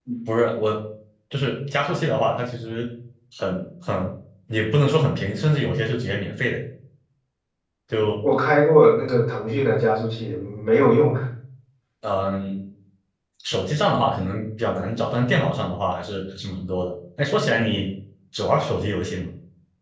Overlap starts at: none

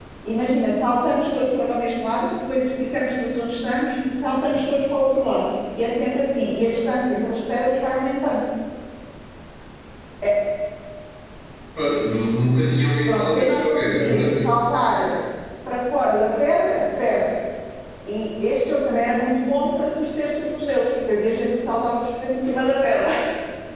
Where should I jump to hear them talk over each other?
13.0 s

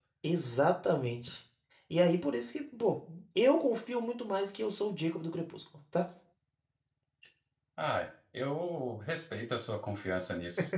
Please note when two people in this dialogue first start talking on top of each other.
none

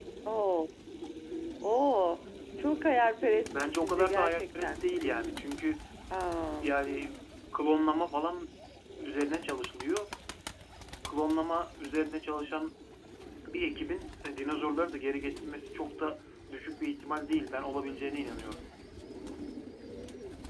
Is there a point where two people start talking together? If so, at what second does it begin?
3.5 s

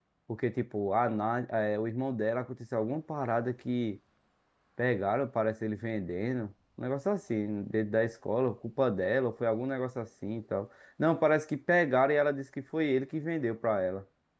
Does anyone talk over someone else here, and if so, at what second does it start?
none

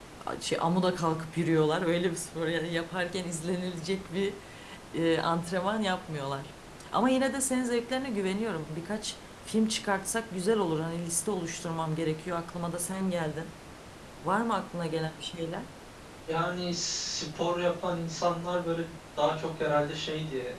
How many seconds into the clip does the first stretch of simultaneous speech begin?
none

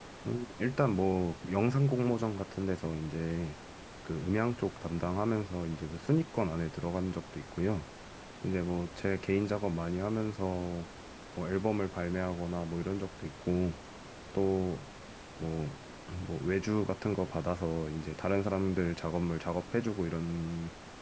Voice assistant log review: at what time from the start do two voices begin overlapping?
none

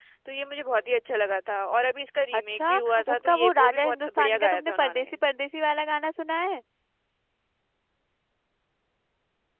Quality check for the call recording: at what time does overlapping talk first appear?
2.3 s

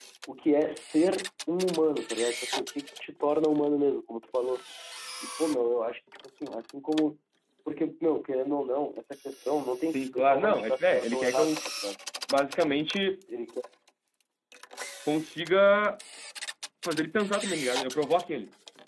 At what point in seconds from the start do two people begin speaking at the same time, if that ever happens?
9.9 s

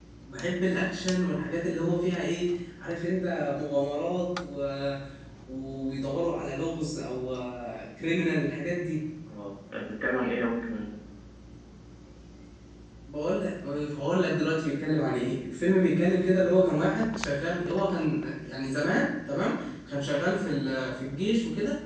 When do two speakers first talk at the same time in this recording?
none

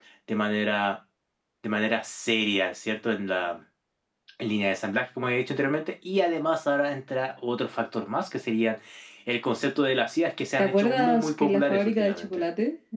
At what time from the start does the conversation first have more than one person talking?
10.6 s

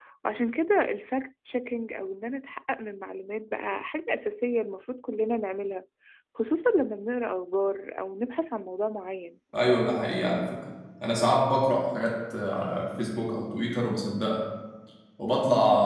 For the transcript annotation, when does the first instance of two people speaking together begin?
none

